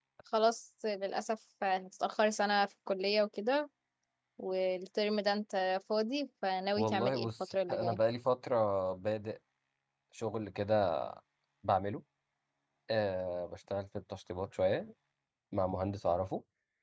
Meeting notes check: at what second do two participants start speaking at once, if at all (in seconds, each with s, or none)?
6.8 s